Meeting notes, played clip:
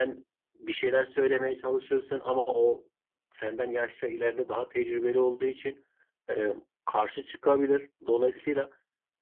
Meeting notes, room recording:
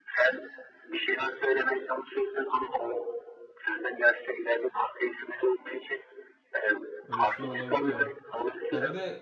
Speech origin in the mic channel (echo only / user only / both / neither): both